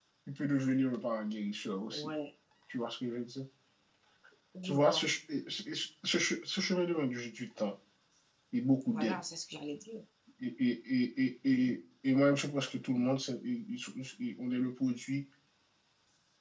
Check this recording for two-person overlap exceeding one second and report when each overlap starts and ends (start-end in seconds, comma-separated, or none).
none